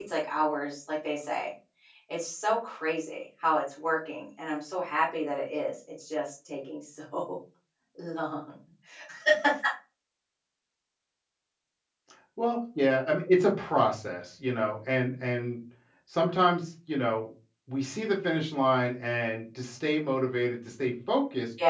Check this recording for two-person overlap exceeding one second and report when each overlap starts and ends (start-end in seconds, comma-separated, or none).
none